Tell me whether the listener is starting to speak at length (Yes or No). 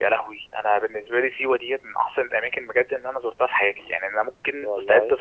No